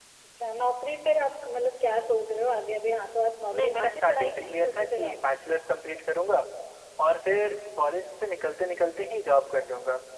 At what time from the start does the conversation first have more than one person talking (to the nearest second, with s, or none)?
4 s